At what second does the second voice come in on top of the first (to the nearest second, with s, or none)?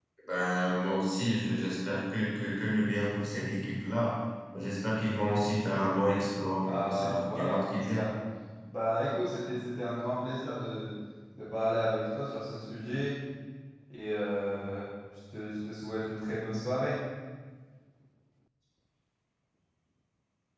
7 s